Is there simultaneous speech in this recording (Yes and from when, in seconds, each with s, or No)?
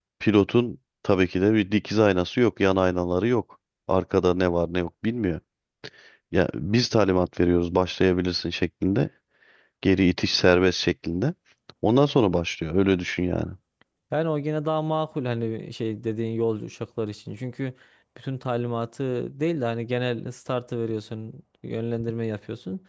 No